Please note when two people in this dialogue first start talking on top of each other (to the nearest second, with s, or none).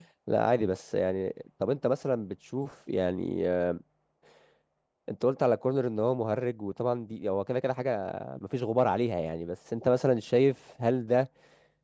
none